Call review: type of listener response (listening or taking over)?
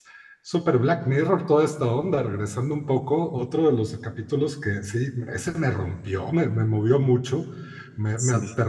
listening